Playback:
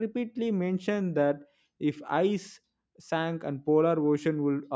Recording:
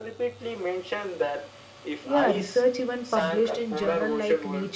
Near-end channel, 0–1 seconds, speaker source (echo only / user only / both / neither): echo only